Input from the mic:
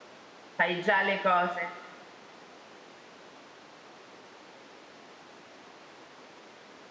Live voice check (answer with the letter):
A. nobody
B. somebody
B